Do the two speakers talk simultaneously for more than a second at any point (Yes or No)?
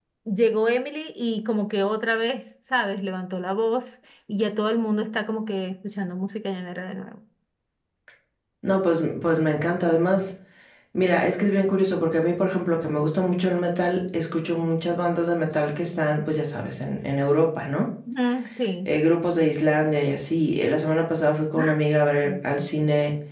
No